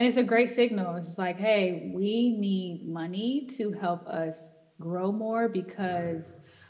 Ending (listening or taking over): listening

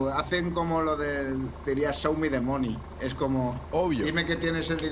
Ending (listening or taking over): listening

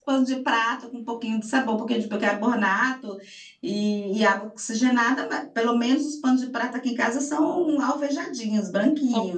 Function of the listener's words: taking over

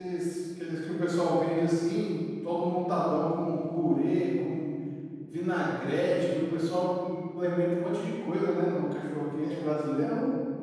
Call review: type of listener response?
taking over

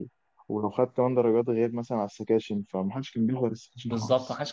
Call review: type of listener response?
taking over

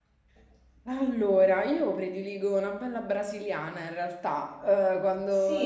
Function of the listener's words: listening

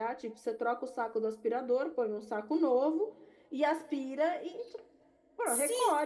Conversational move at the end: taking over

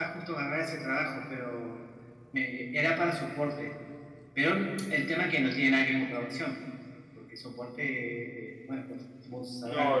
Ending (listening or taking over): taking over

